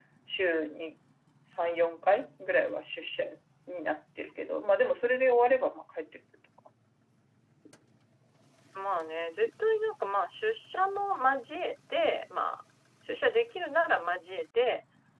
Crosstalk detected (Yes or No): No